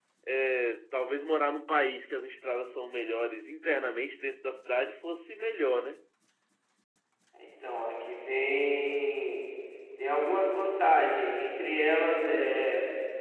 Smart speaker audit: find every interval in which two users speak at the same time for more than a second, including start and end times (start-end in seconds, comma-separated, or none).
none